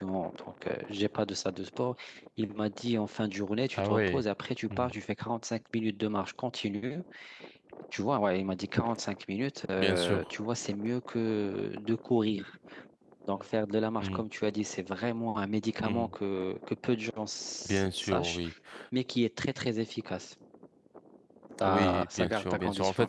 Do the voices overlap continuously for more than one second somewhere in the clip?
Yes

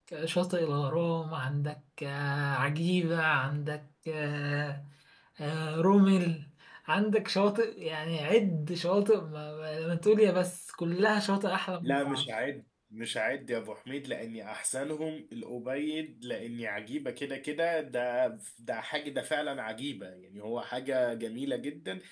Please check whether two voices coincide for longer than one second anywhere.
No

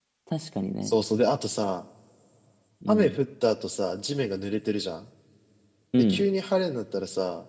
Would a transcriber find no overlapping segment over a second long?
Yes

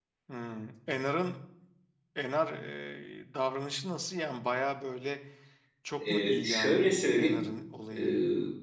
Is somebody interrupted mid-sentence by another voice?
Yes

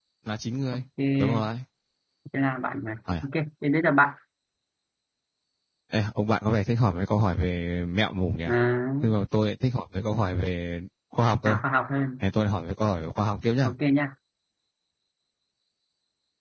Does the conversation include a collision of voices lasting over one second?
No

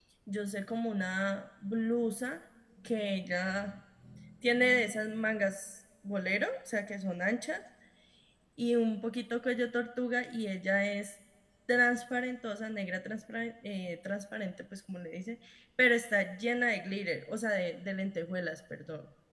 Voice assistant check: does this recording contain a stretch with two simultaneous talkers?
No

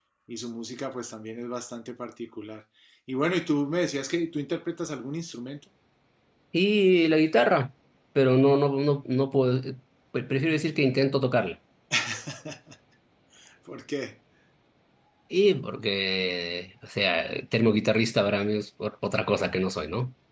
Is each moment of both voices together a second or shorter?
Yes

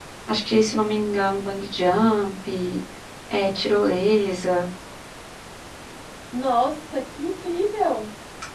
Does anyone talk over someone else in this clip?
No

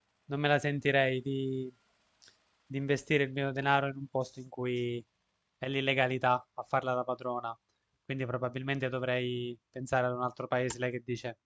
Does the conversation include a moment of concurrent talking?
No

